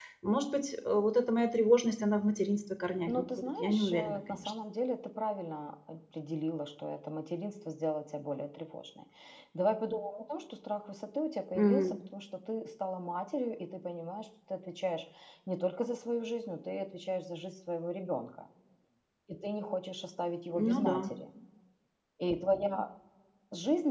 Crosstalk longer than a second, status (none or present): present